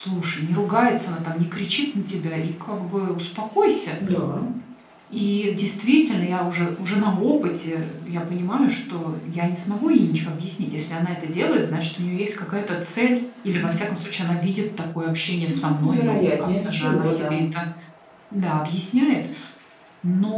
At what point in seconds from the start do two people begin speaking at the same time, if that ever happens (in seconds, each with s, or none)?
15.5 s